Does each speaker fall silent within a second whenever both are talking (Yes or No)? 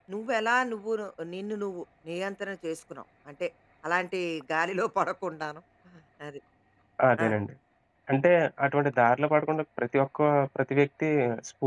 Yes